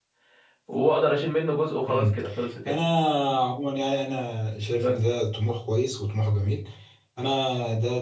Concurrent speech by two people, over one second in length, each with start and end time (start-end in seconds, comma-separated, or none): none